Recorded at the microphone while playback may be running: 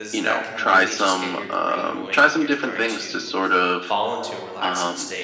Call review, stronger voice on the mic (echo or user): echo